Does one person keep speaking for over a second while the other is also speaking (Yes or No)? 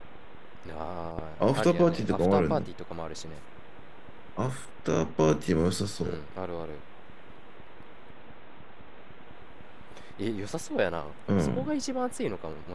Yes